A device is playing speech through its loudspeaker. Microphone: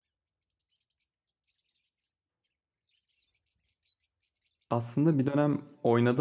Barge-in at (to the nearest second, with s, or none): 5 s